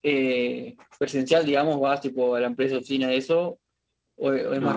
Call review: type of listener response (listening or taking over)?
taking over